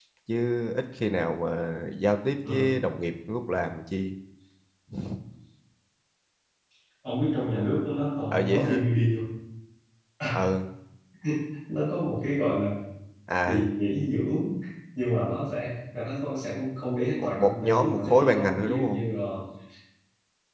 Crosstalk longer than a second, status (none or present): present